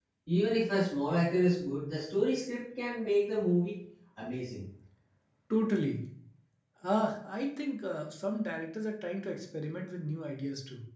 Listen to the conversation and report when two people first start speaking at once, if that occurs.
none

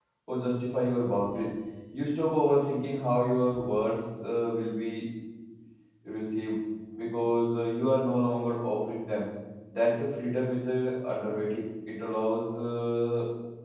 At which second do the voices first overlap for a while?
none

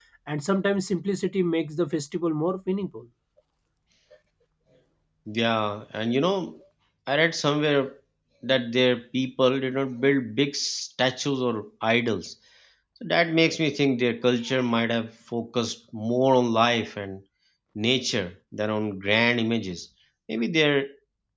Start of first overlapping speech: none

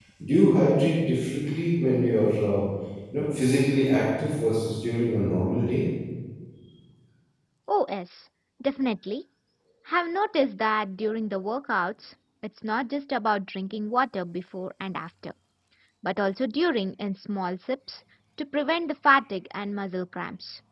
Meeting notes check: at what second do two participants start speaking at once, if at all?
none

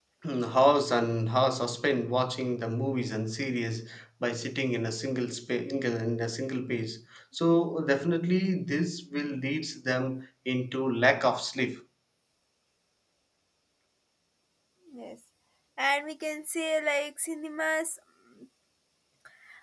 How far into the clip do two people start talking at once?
none

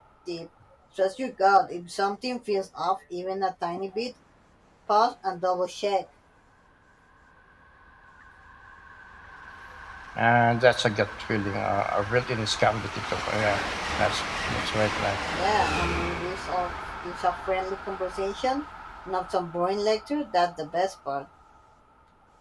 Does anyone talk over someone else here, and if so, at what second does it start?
none

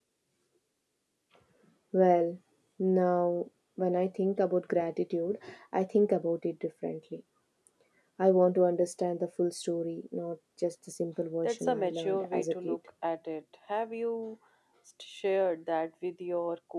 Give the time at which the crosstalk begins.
11 s

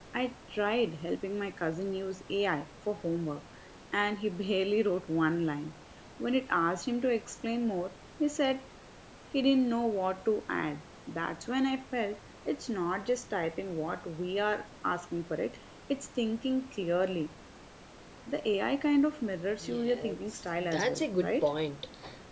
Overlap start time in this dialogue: 20 s

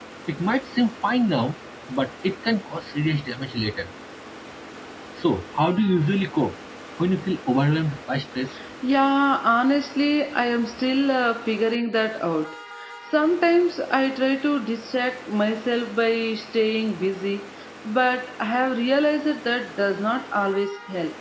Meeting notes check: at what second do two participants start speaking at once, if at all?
none

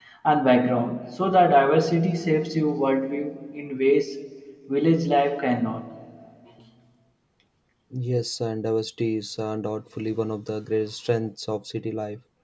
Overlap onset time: none

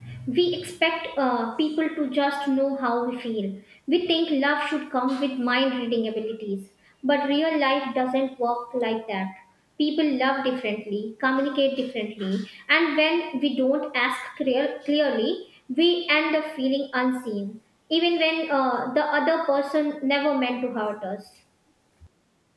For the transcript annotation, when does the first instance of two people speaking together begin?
none

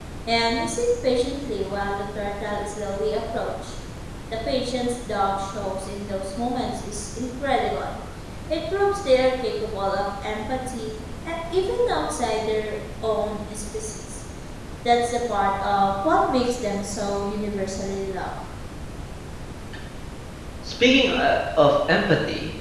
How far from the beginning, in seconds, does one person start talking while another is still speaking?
none

